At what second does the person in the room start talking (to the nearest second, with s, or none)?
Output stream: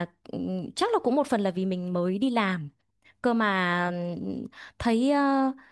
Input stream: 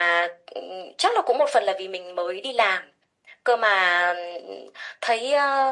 none